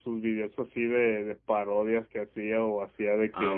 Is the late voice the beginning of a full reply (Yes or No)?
No